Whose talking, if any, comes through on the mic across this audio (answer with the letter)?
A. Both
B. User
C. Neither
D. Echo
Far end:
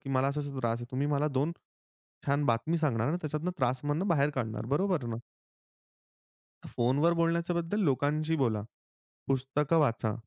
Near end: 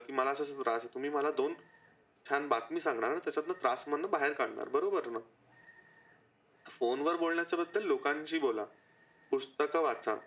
D